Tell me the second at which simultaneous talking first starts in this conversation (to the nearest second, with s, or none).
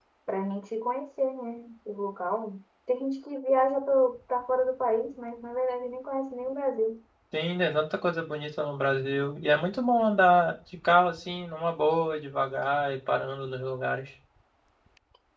none